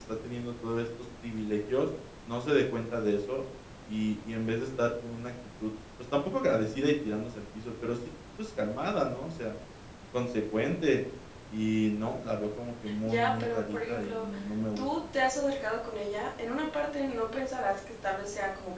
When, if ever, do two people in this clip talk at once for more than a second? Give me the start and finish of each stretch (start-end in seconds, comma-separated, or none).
13.1-14.3